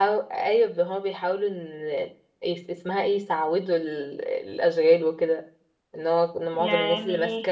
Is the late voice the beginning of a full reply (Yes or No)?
No